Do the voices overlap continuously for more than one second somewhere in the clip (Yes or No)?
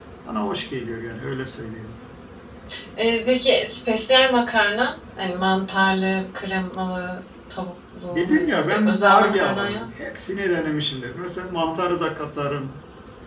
Yes